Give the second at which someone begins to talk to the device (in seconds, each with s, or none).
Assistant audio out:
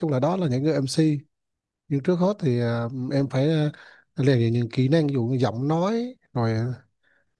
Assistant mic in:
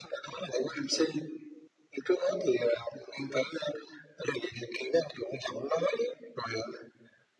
none